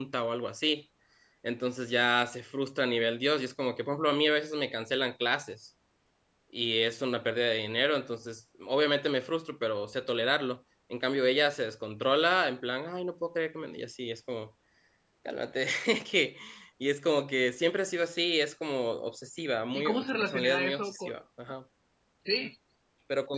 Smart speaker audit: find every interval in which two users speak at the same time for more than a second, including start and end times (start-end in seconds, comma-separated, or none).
19.7-21.1